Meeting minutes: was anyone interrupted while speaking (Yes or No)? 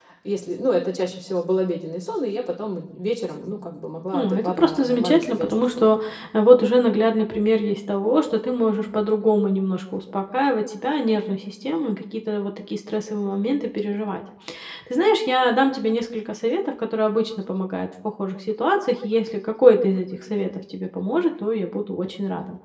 Yes